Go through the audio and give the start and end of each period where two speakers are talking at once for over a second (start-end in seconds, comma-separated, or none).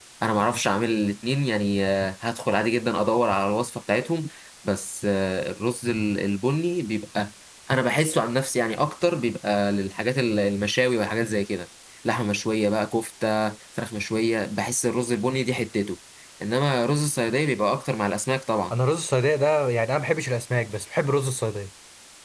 none